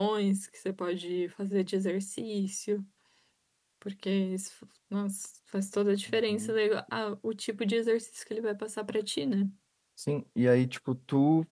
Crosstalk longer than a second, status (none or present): none